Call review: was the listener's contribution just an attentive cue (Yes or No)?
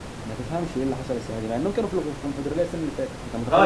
No